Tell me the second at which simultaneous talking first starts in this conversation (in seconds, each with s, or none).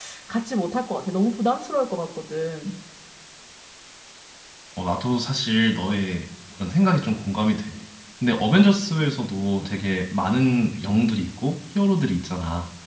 none